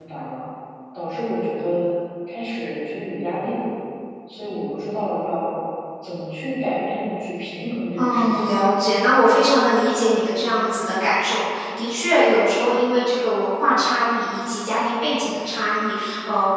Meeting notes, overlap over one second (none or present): none